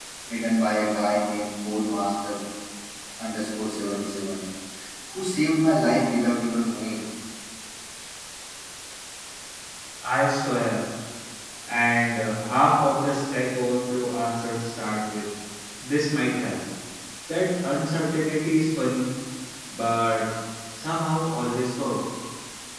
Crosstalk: none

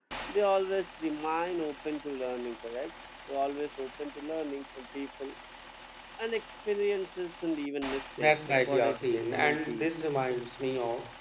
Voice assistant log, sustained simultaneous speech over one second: present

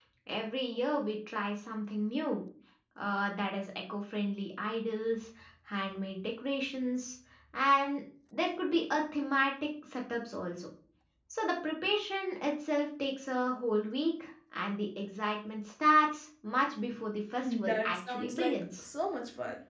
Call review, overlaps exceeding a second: present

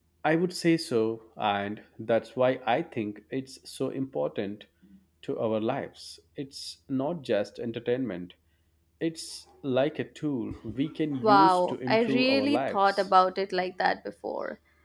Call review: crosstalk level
present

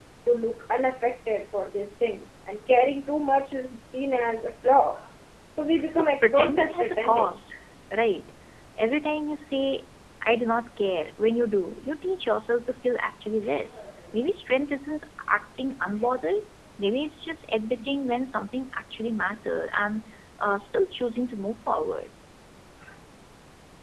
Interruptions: present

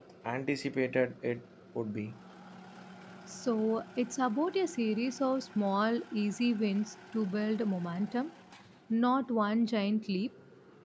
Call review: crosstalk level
none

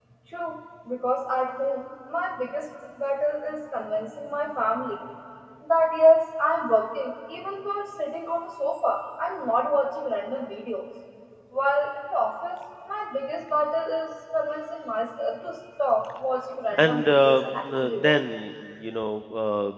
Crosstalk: present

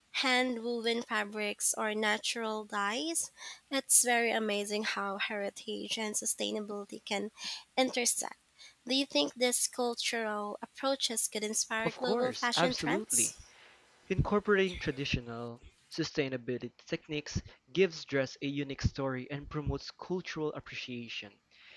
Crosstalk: present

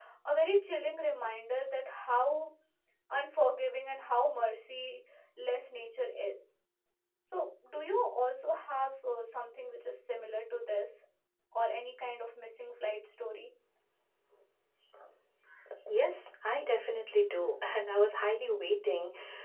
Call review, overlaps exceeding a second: none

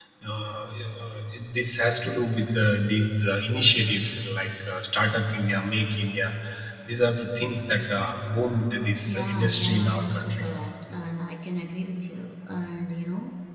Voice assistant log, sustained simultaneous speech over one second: present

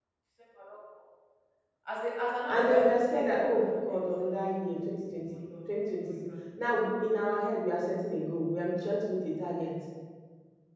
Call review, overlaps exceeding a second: present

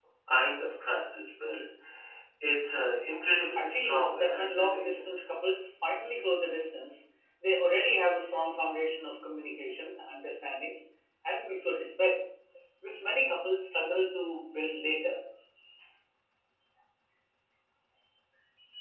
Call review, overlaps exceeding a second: present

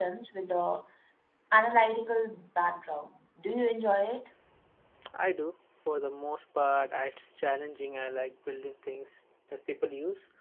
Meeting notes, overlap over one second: none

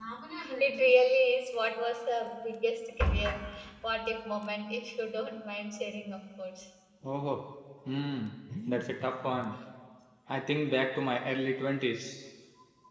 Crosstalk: none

